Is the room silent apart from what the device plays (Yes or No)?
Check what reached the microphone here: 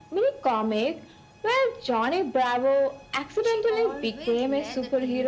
No